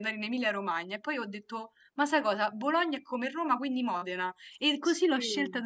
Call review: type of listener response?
listening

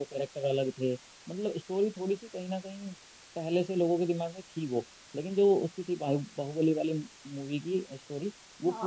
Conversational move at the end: taking over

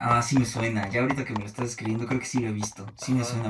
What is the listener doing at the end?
taking over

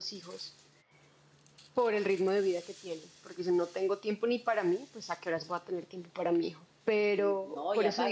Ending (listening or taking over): taking over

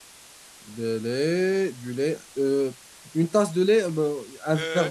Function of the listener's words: taking over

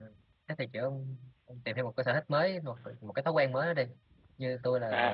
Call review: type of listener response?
taking over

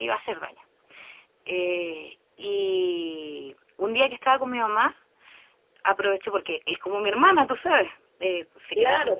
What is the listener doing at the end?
taking over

